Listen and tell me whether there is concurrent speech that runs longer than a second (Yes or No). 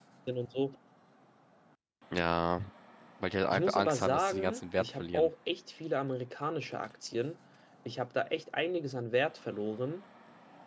Yes